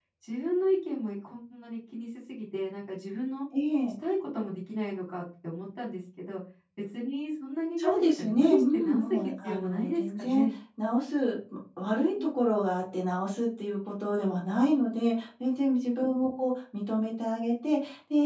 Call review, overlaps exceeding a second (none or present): present